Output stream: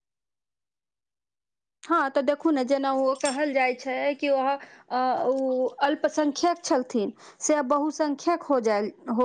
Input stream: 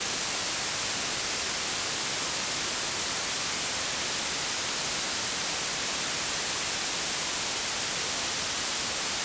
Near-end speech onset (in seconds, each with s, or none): none